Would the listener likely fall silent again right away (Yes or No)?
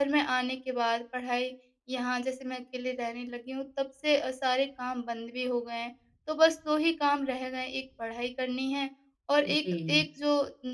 Yes